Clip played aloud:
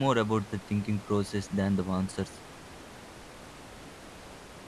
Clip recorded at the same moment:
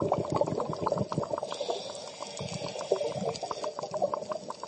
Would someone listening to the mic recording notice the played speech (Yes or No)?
No